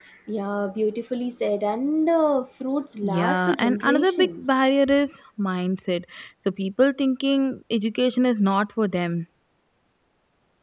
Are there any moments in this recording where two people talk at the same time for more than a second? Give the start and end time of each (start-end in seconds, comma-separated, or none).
3.0-4.5